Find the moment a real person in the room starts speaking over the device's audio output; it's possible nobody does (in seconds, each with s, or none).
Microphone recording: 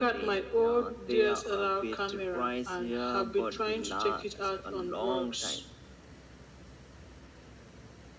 none